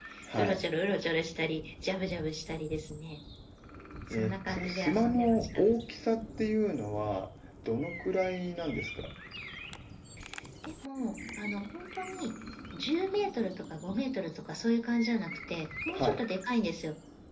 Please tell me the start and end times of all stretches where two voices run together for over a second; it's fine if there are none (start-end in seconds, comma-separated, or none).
4.1-5.4